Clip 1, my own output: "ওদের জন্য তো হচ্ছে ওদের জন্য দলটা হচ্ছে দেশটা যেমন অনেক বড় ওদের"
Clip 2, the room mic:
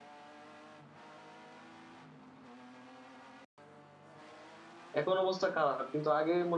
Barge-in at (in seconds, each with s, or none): 5.0 s